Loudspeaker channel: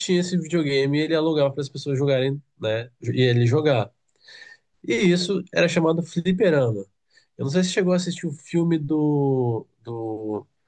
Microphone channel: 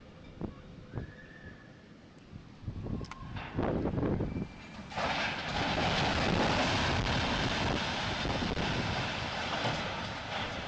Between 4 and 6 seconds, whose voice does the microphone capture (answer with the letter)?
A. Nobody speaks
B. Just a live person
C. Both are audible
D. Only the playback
A